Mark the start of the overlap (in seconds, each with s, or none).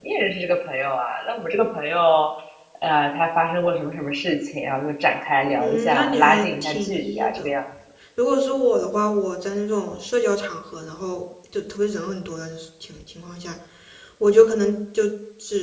5.6 s